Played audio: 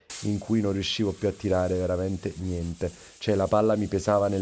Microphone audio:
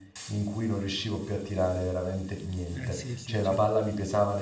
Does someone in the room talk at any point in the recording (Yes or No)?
Yes